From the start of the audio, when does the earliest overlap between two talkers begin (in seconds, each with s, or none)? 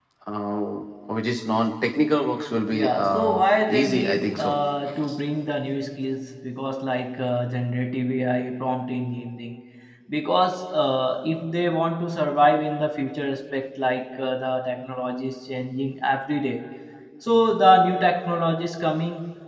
2.7 s